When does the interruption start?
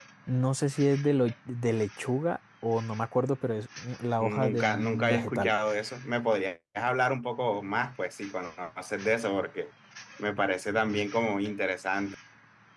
4.2 s

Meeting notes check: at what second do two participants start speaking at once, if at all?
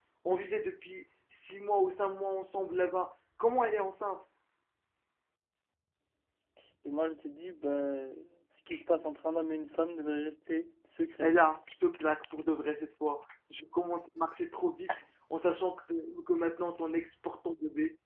none

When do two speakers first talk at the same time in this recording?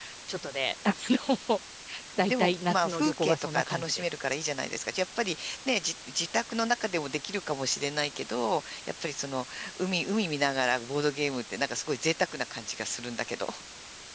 2.3 s

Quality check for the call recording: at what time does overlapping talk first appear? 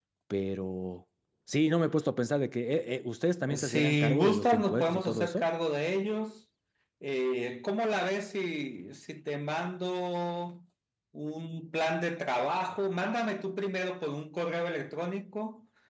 3.4 s

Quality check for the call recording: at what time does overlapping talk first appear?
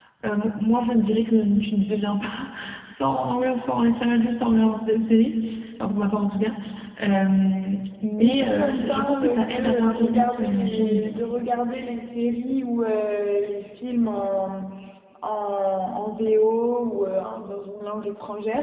8.2 s

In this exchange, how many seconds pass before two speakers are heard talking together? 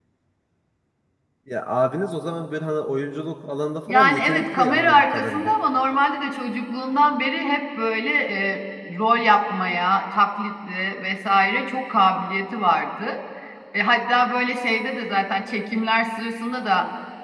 3.9 s

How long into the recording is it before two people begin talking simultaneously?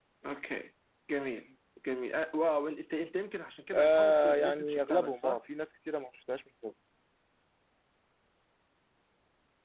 3.7 s

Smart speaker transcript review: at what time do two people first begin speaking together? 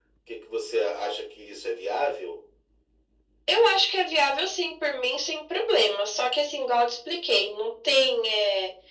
none

